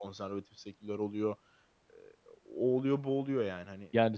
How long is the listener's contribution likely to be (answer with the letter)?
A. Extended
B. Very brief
A